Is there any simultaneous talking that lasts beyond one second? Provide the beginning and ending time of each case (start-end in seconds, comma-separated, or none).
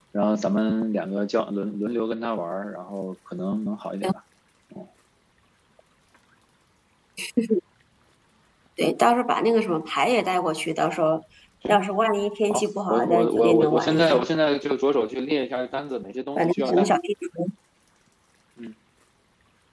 12.5-14.2